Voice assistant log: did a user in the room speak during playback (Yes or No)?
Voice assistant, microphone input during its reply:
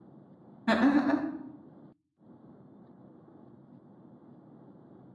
Yes